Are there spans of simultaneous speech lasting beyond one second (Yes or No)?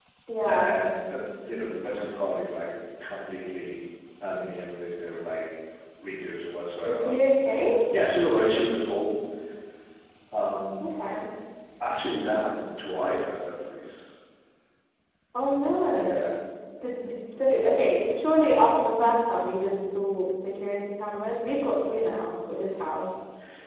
No